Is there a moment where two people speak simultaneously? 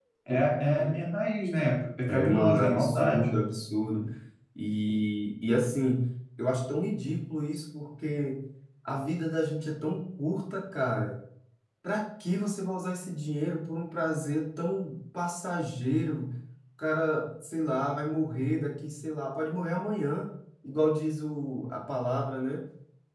Yes, from 2.1 s

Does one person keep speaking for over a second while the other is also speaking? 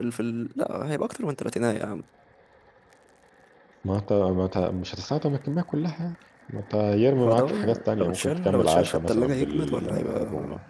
Yes, from 7.2 s

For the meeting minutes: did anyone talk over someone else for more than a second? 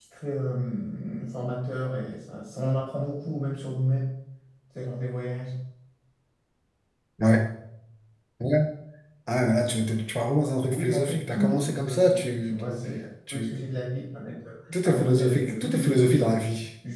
Yes, from 10.7 s

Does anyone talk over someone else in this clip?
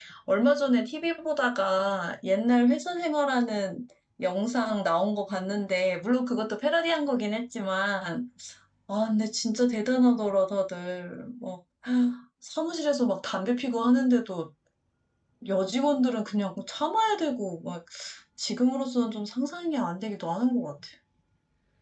No

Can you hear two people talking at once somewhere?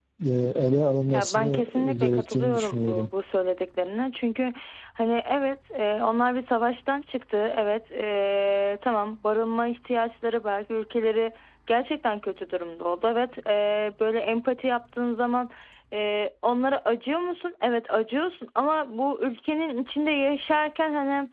Yes, from 1.1 s

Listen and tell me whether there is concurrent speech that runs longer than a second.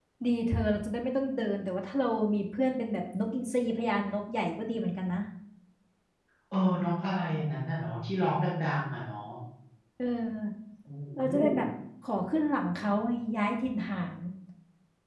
No

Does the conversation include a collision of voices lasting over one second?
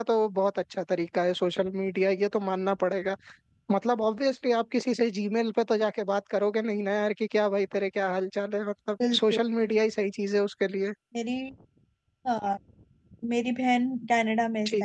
No

